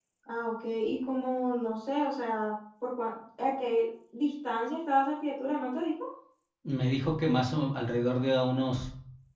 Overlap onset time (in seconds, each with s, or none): none